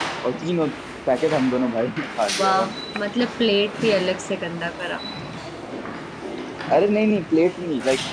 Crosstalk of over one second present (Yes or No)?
No